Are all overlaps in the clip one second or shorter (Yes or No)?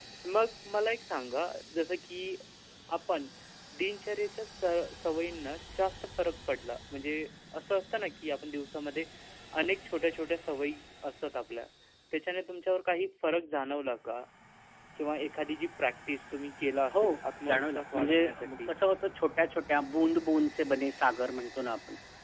No